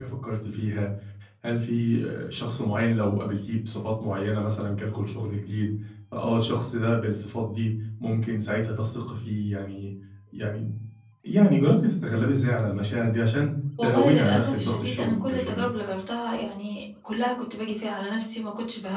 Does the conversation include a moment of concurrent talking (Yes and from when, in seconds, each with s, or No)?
Yes, from 13.8 s